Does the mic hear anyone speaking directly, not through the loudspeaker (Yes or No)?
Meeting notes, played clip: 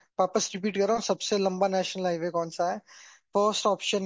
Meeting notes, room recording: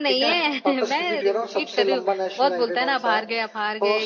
Yes